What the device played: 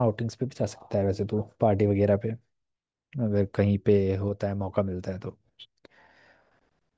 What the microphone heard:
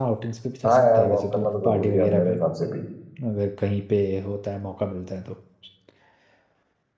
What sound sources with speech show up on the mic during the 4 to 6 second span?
echo only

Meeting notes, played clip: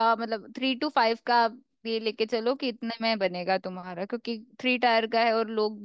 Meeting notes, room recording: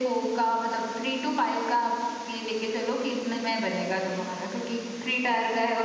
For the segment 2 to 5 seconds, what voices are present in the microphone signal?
echo only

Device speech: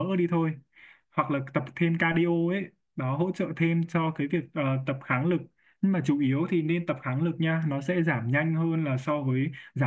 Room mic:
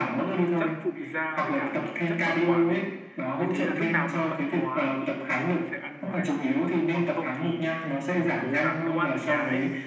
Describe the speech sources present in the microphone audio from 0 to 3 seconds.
both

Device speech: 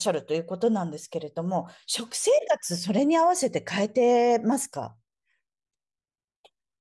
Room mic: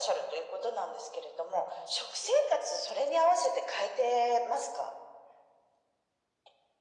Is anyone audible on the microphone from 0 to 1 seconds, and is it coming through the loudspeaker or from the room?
echo only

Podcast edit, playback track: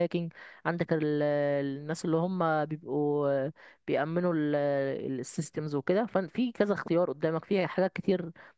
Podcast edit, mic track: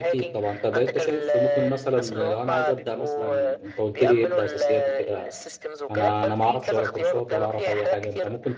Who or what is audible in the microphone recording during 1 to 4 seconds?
both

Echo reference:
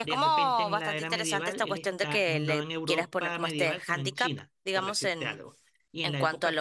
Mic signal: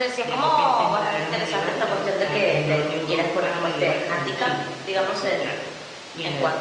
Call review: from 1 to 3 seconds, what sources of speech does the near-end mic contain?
echo only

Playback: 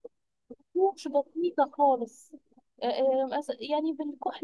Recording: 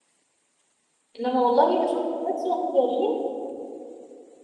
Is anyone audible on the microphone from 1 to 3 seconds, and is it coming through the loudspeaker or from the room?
user only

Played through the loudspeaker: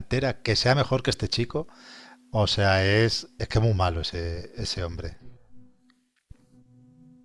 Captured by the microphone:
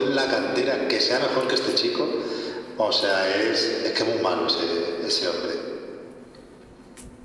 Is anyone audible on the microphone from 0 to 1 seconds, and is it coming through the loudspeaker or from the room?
echo only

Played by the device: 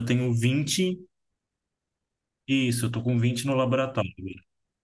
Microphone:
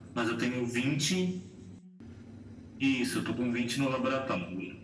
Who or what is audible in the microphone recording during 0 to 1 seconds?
echo only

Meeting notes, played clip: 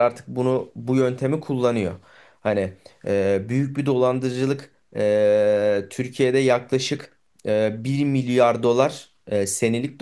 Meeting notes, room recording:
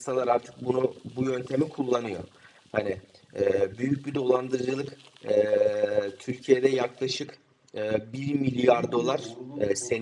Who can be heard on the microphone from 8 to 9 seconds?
both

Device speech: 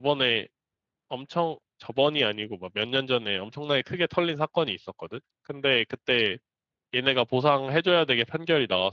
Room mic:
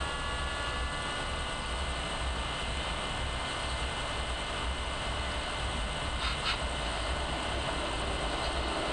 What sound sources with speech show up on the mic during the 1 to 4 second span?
neither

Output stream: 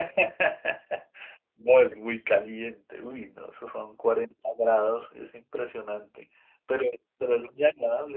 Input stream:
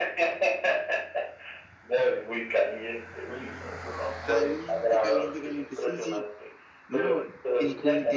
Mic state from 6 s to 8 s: both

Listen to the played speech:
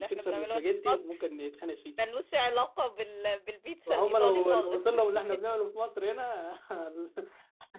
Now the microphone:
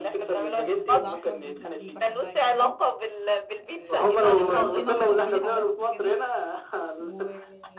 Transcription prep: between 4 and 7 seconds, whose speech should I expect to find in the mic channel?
both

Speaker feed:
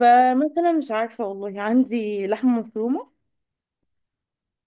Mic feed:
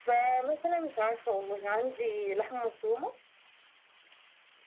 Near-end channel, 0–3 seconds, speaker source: echo only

